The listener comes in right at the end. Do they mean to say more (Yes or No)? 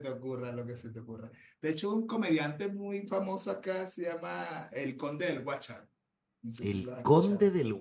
Yes